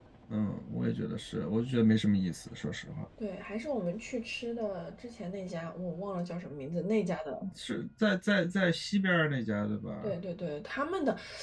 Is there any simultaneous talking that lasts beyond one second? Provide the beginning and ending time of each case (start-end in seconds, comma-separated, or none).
none